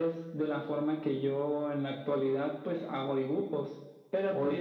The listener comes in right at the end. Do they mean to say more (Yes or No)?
No